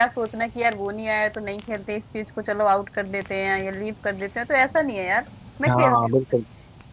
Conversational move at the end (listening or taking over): taking over